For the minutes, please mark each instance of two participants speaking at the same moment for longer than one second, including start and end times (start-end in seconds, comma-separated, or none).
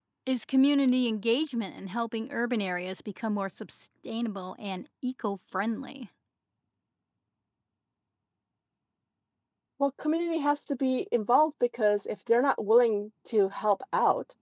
none